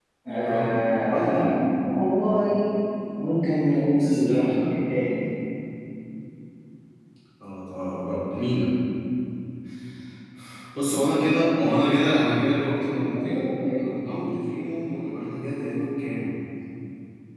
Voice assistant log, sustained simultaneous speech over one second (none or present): present